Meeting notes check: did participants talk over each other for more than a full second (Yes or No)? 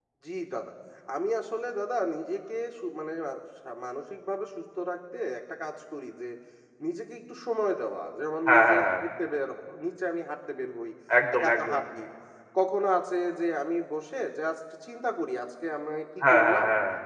No